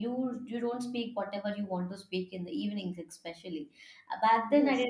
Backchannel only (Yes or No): Yes